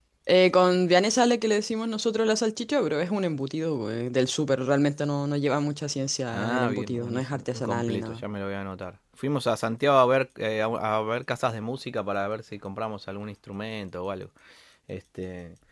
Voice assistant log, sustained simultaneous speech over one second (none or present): present